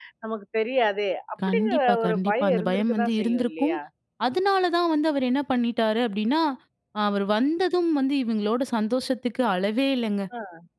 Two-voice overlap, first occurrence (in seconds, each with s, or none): 1.4 s